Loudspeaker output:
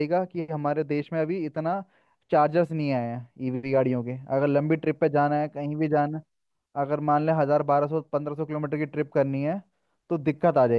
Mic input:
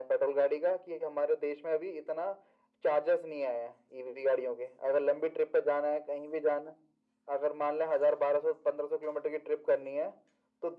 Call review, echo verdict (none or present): present